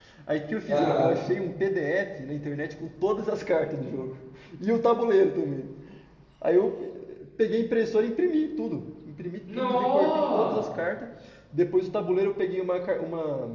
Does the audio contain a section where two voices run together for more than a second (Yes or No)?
Yes